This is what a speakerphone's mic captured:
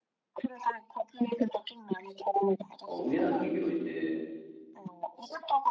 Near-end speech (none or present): present